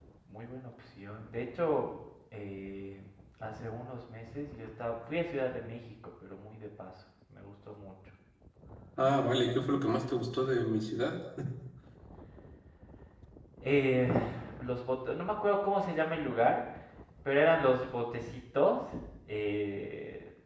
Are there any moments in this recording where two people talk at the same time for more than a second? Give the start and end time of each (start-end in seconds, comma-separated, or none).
none